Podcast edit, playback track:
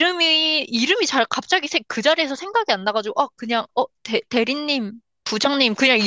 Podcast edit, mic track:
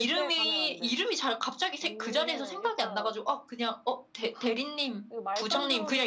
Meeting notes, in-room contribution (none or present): present